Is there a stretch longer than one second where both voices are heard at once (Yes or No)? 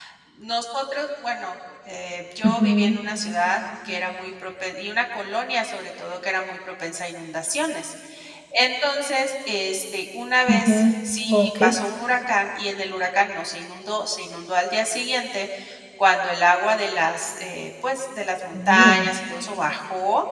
No